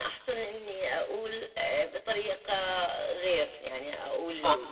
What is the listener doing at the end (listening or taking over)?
taking over